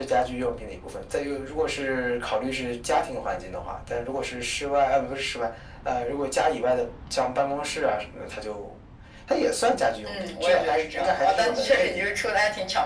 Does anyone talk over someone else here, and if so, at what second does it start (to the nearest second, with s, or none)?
10 s